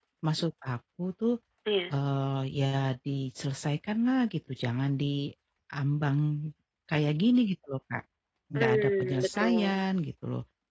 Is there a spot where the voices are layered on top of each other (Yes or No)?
Yes